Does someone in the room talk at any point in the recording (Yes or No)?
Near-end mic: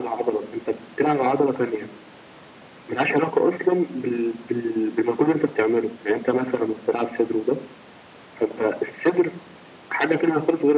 No